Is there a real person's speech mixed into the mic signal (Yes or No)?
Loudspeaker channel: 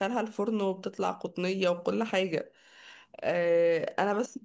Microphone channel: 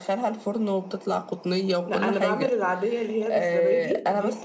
Yes